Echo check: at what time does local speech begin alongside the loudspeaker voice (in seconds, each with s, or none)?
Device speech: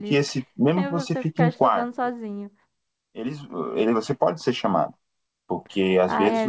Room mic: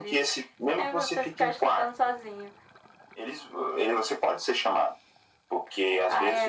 none